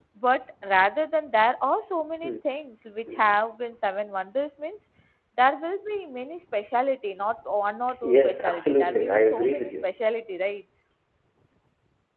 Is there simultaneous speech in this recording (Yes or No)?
Yes